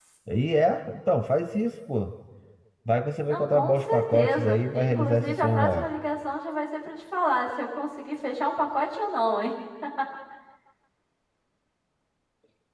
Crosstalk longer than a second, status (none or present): present